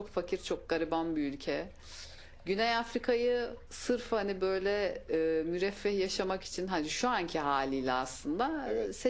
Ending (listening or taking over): listening